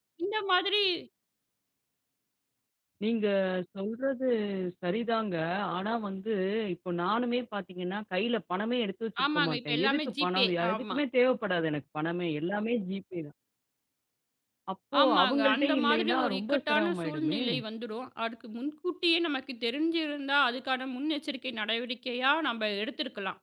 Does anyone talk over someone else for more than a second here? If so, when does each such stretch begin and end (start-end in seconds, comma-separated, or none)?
9.2-11.0, 15.0-17.4